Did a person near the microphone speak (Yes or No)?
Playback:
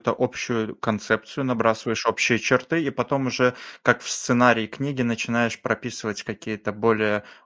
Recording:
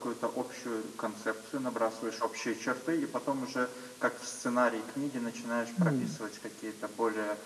Yes